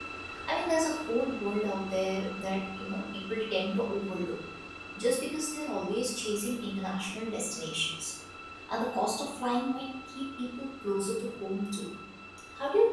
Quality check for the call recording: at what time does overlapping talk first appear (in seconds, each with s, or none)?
none